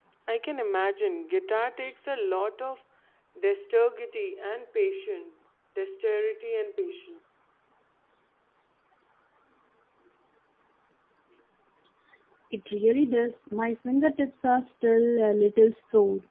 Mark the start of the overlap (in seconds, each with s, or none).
none